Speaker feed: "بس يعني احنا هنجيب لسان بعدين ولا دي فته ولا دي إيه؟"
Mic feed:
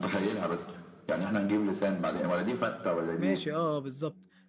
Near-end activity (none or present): present